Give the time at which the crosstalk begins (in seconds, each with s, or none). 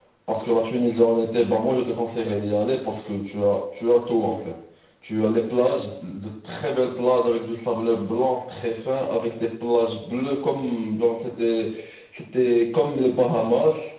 none